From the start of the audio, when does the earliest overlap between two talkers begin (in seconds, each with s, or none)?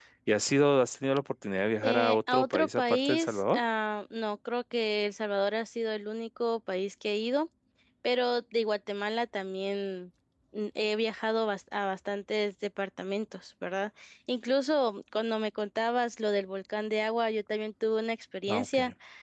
1.8 s